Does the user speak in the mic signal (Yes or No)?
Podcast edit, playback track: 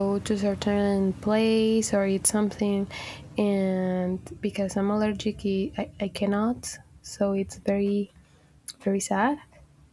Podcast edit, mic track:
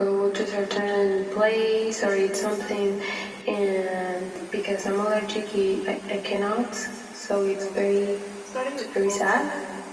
Yes